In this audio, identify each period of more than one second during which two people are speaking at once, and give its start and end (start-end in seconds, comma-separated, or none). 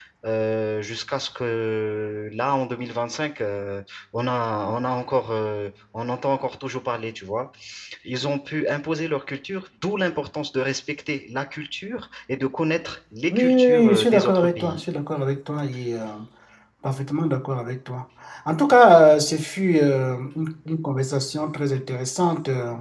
13.3-14.8